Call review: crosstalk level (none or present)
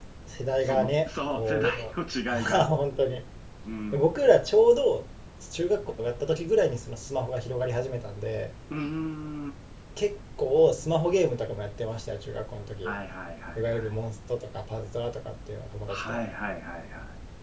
present